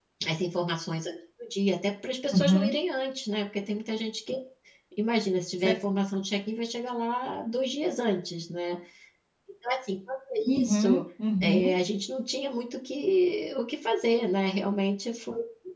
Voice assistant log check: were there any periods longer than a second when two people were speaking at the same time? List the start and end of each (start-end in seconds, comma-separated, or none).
none